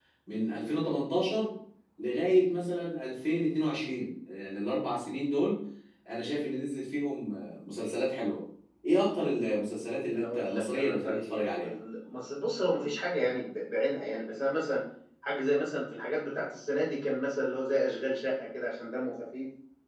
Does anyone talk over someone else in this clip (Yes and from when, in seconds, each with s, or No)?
Yes, from 10.1 s